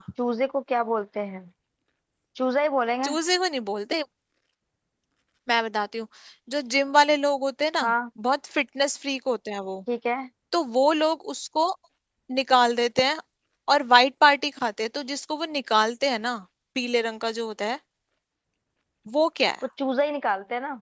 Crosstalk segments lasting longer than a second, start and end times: none

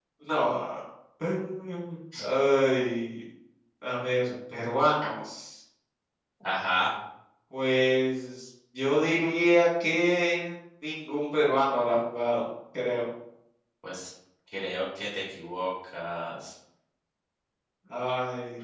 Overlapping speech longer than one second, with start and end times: none

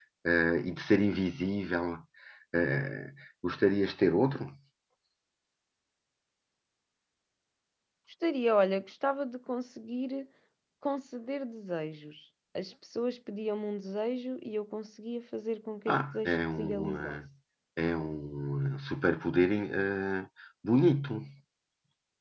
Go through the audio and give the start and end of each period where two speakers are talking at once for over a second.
15.9-17.2

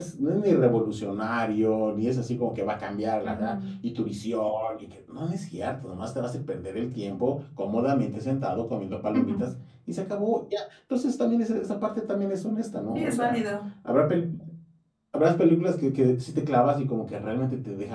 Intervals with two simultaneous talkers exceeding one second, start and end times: none

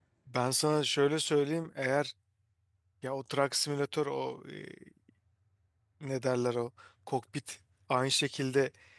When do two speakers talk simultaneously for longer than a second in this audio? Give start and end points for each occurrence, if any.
none

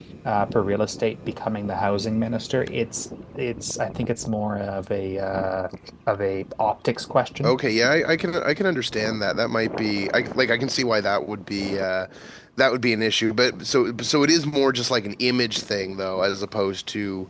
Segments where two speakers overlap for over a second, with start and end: none

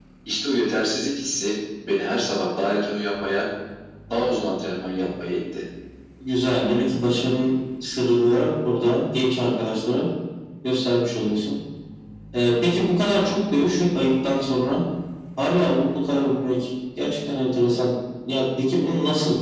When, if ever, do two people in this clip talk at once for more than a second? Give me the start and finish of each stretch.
none

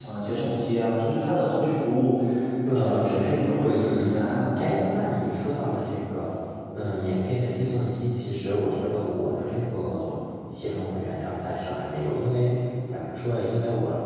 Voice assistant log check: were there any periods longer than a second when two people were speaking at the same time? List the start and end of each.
2.7-4.1

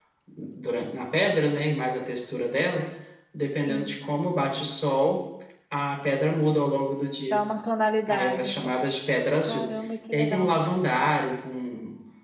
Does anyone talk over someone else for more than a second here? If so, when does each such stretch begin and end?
none

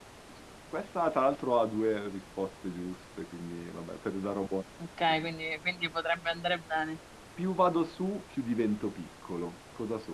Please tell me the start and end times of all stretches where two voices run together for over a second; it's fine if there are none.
none

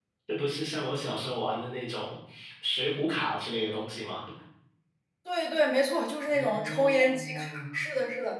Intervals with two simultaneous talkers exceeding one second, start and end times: 6.3-7.6

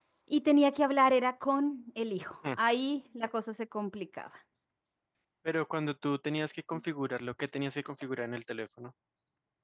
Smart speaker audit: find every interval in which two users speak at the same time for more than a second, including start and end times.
none

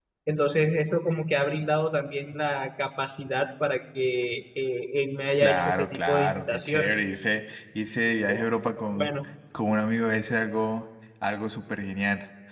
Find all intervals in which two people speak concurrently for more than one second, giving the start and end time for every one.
5.4-7.0

